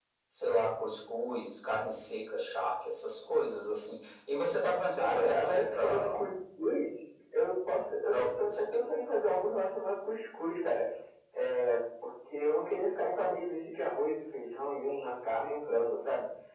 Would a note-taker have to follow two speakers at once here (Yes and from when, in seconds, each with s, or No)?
Yes, from 5.0 s